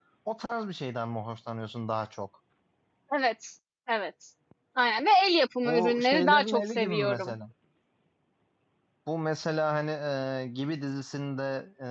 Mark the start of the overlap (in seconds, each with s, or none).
5.6 s